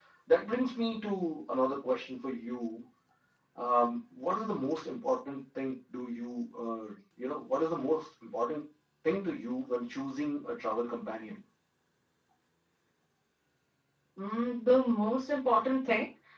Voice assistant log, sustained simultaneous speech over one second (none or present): none